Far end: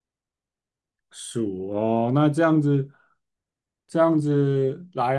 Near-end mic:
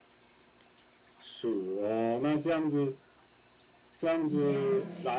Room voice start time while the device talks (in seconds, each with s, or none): 4.2 s